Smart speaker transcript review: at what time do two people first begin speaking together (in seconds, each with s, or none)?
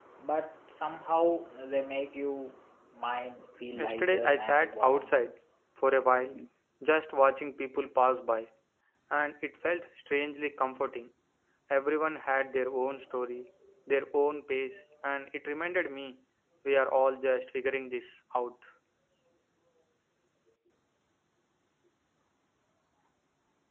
3.7 s